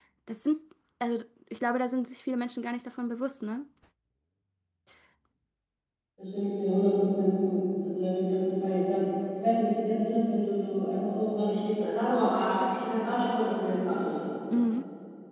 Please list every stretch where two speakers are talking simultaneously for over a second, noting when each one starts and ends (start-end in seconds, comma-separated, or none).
none